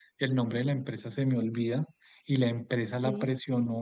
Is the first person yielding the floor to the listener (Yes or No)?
No